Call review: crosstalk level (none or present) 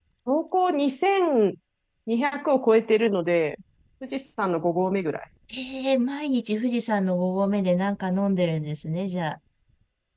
none